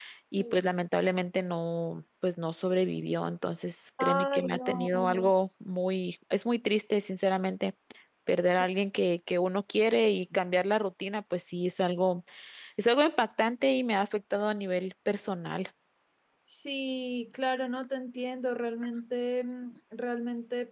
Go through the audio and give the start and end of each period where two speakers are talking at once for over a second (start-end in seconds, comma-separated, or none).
4.0-5.3